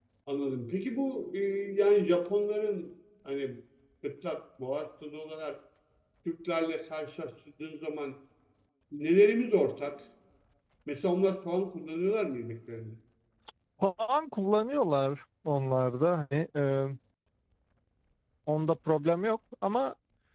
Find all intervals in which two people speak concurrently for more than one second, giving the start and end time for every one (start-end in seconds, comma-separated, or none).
none